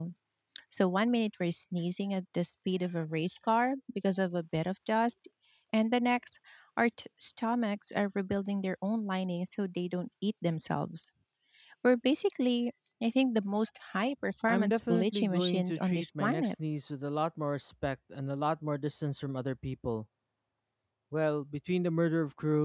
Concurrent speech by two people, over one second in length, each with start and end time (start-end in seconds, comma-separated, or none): 14.5-16.5